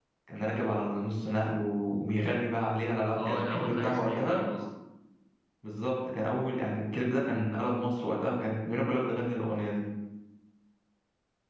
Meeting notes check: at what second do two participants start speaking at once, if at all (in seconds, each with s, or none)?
3.2 s